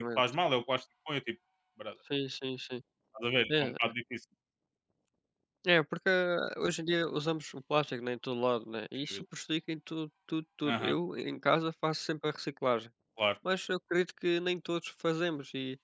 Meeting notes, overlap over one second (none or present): none